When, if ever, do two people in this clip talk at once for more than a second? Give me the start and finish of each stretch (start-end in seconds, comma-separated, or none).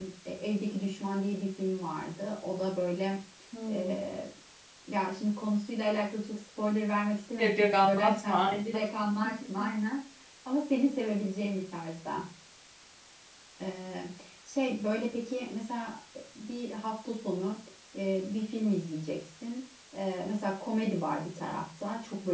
7.3-8.8